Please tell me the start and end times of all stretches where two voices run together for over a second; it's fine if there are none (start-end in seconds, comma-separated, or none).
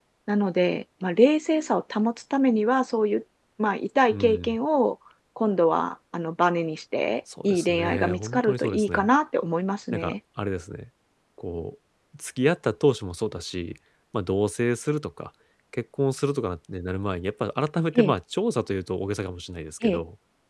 7.4-9.1